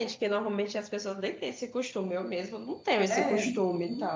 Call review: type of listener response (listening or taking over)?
taking over